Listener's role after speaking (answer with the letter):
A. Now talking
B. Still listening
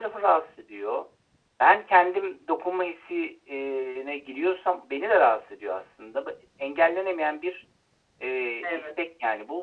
B